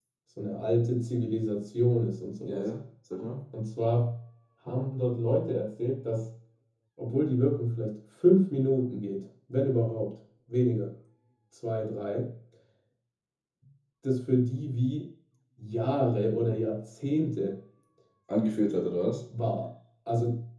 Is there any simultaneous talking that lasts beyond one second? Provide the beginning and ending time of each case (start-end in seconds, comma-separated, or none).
none